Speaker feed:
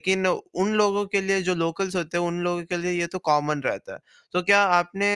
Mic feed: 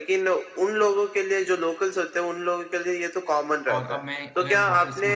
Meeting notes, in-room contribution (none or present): present